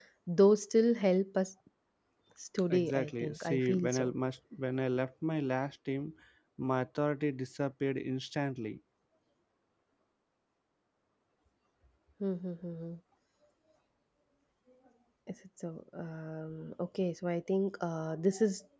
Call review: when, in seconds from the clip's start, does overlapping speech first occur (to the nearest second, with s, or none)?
3 s